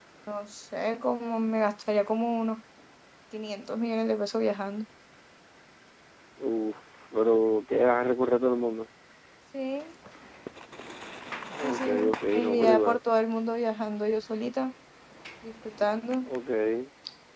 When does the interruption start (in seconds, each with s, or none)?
11.6 s